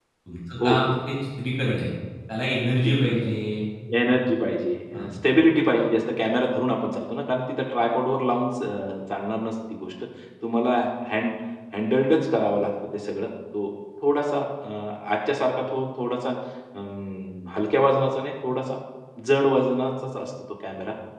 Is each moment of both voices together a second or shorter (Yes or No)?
Yes